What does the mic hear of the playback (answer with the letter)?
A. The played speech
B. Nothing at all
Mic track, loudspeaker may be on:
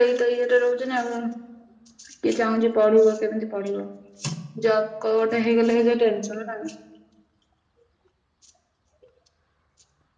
A